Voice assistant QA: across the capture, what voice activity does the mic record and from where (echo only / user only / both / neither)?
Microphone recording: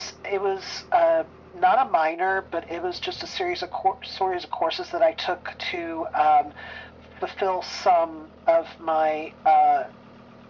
echo only